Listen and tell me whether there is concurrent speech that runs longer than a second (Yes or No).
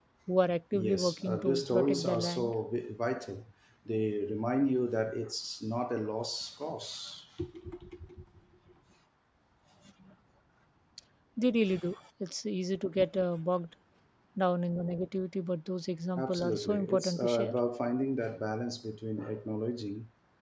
Yes